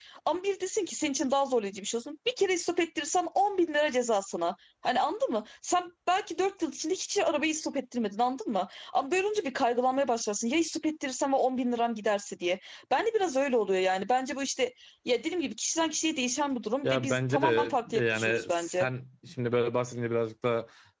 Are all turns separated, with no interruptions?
No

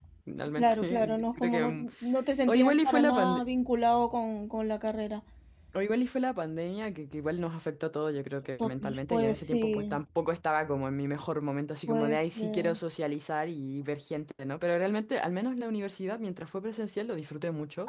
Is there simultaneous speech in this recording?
Yes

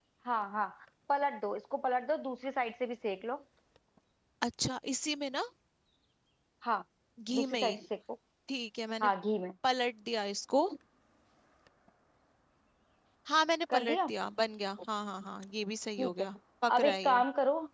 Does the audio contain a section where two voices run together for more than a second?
No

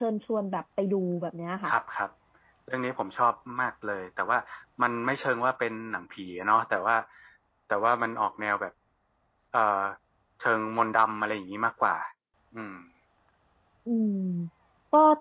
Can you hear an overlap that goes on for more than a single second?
No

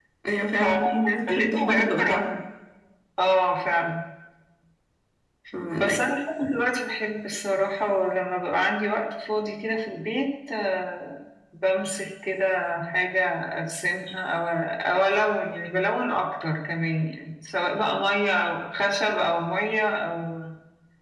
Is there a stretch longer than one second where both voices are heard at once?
Yes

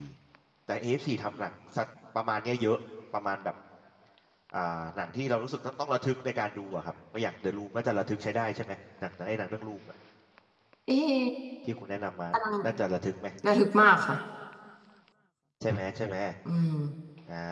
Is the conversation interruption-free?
Yes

